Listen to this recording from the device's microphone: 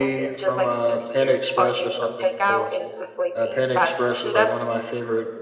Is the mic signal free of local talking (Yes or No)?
No